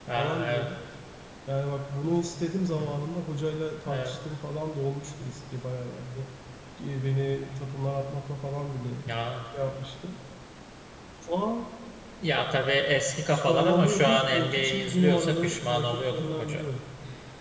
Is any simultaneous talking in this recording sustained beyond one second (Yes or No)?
Yes